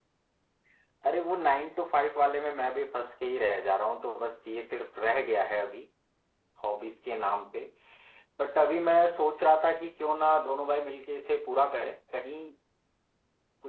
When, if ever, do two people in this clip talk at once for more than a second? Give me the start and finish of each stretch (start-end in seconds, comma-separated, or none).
none